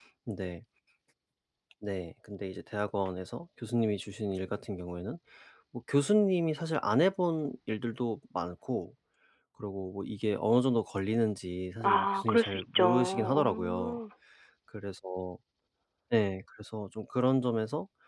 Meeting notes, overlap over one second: present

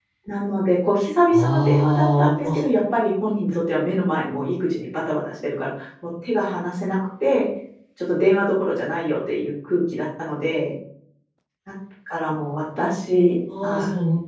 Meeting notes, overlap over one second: present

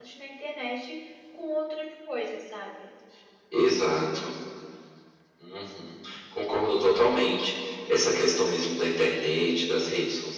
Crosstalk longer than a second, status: none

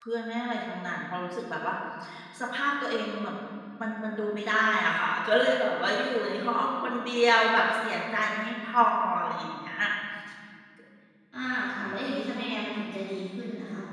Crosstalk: none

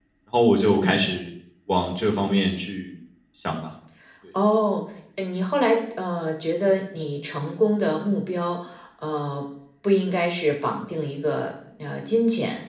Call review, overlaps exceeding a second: none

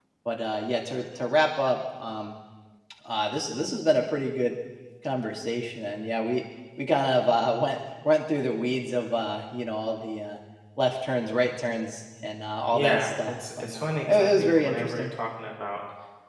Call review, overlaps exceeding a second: present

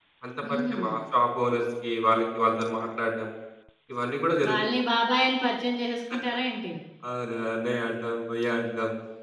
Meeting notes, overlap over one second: none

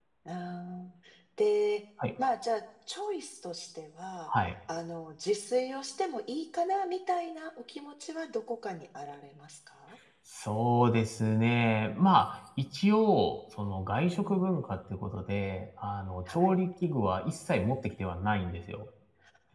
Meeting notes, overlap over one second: none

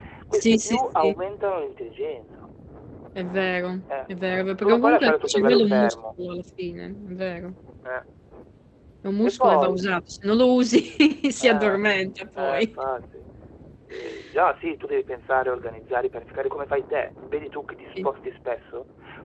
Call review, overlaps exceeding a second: present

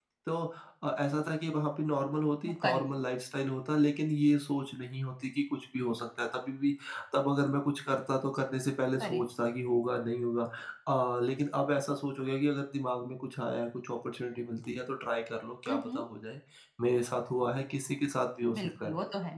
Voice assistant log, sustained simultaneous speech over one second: none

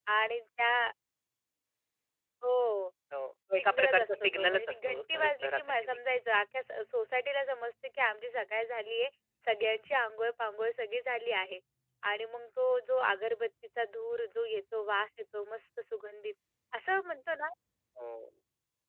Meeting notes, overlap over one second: present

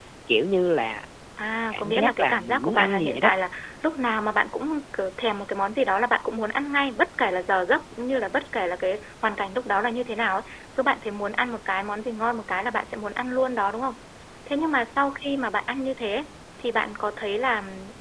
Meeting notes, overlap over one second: present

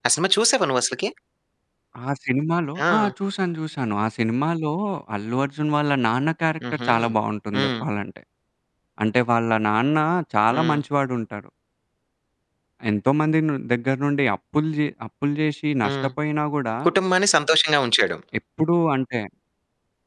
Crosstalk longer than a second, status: none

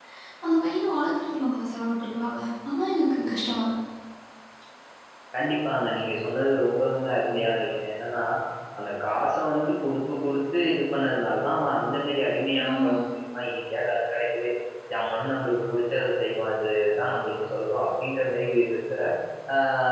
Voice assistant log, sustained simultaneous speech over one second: none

